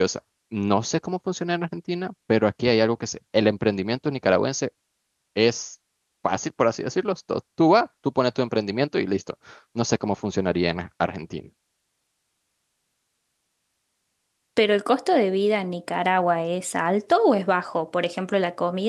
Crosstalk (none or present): none